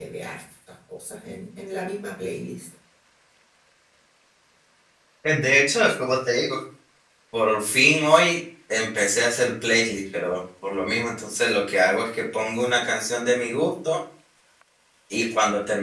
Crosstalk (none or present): none